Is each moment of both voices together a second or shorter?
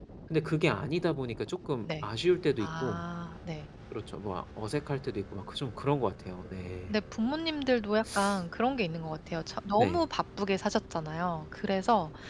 Yes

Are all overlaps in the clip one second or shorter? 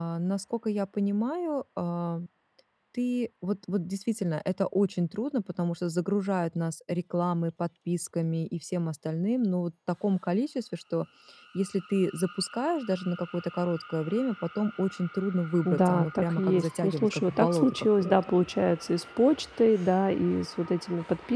No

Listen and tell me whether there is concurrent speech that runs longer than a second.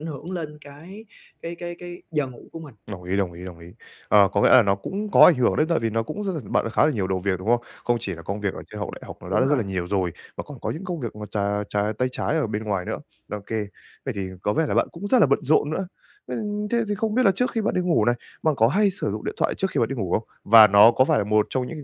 No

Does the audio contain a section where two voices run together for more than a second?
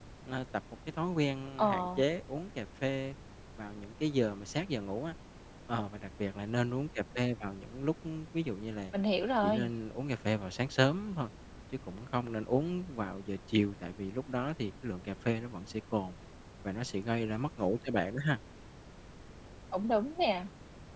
No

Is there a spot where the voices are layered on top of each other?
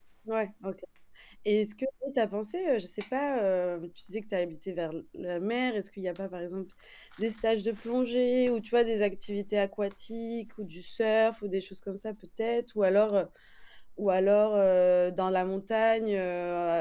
No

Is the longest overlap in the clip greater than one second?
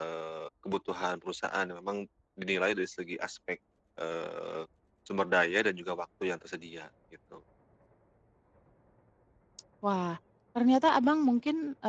No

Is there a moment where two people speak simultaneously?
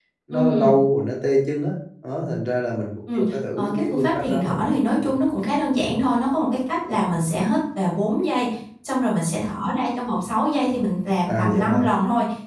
Yes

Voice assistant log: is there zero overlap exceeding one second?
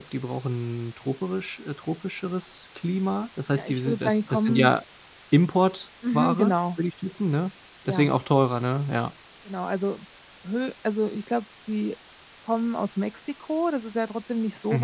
No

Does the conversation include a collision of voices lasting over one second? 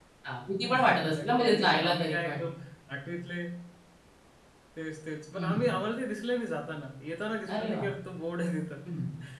Yes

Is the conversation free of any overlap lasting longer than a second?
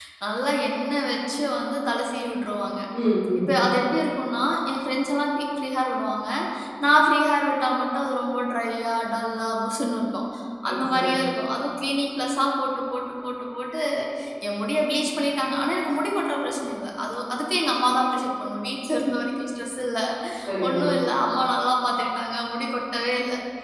Yes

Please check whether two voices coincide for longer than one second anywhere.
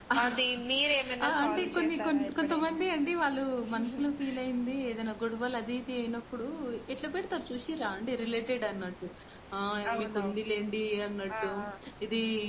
Yes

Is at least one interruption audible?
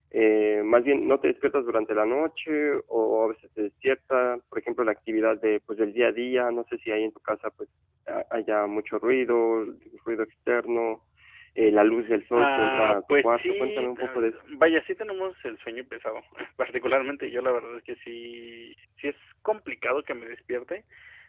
Yes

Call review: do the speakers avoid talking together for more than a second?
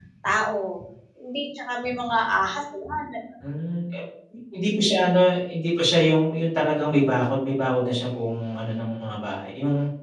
Yes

